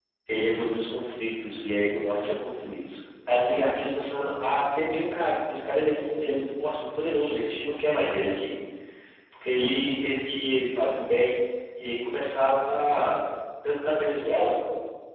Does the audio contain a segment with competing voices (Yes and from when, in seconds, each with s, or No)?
No